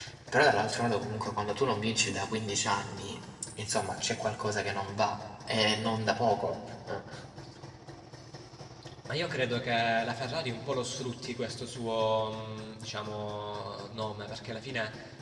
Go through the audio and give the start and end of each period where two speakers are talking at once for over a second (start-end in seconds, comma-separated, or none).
none